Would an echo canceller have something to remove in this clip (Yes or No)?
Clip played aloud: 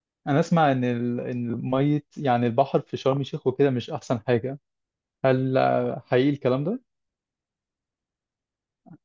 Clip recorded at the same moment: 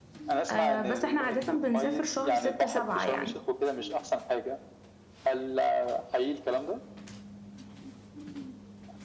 Yes